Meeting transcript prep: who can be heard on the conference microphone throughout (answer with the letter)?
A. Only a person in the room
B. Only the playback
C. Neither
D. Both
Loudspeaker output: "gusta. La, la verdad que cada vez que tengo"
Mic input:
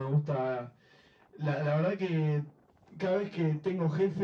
B